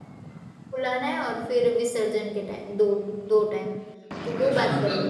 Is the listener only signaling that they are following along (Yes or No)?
No